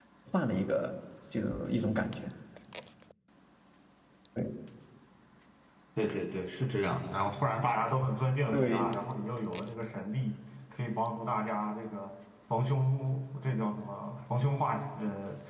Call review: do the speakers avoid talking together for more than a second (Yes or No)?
Yes